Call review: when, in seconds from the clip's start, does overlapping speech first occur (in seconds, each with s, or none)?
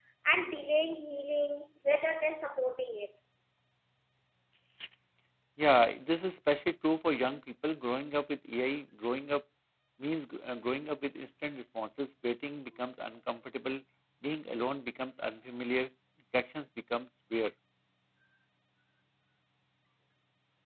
none